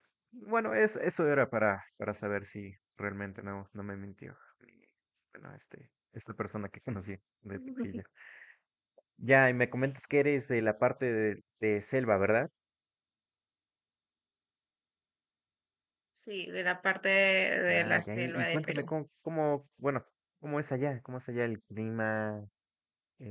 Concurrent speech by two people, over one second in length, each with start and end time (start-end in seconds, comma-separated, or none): 17.7-18.9